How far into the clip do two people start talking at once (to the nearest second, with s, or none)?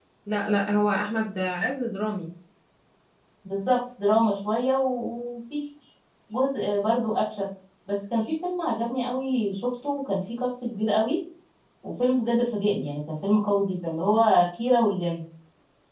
none